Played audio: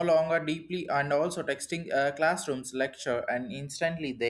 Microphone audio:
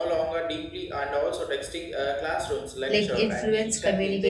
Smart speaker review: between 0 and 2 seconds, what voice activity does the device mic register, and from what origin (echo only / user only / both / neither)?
echo only